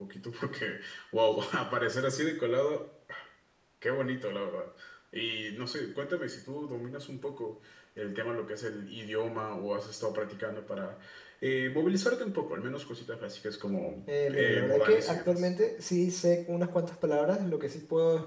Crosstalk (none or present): present